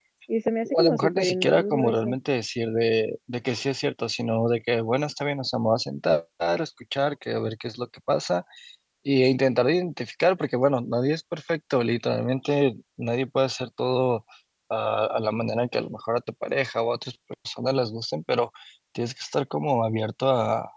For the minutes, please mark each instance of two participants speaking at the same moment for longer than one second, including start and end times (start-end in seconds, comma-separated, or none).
0.8-2.2